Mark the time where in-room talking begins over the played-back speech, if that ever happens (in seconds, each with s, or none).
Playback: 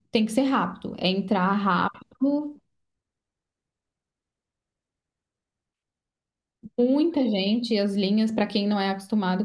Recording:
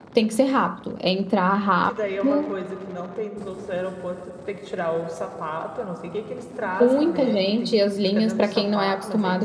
1.8 s